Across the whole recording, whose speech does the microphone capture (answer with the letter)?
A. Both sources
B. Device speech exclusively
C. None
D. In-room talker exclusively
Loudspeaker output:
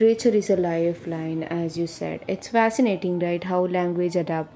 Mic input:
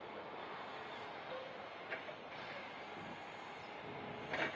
C